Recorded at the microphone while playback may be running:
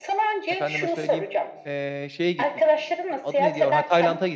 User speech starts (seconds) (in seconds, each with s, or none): 0.5 s